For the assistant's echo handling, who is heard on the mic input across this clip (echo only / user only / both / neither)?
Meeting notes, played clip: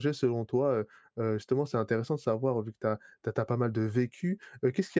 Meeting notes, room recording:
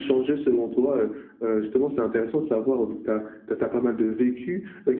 echo only